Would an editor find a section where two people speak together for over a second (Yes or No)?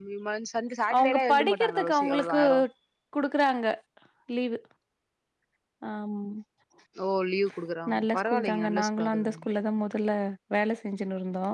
Yes